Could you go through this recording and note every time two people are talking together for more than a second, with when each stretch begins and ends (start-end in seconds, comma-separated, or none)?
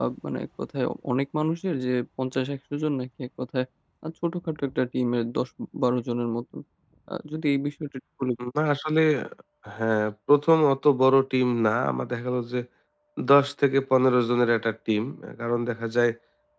none